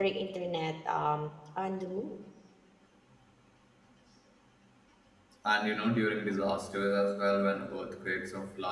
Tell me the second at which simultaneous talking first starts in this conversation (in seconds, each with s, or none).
none